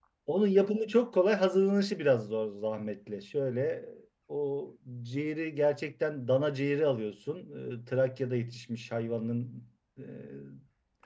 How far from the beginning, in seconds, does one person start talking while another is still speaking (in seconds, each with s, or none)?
none